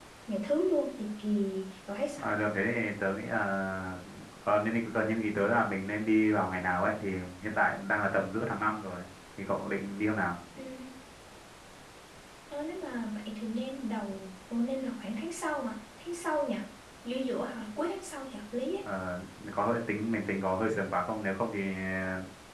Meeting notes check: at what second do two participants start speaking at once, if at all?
none

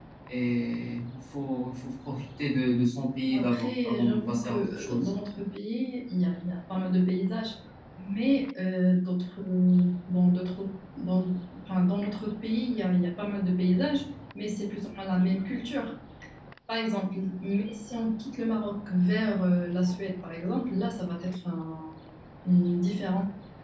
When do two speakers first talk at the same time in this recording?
3 s

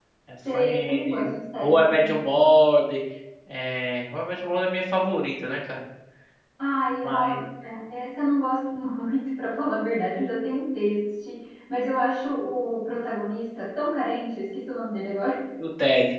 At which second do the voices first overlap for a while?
1 s

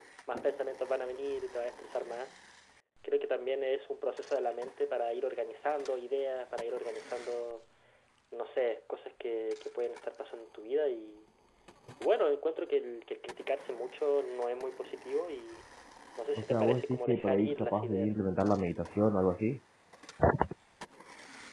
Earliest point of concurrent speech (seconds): 16 s

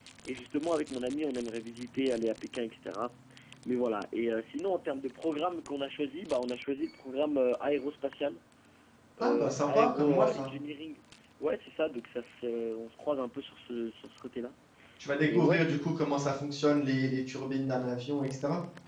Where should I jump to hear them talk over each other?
9 s

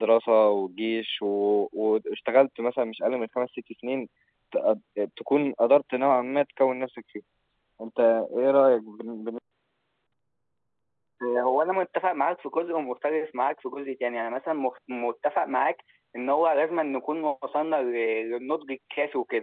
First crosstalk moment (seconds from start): none

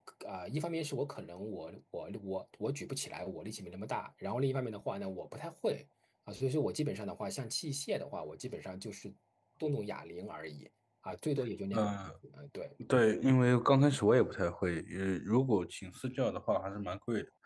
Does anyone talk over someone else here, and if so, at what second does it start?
none

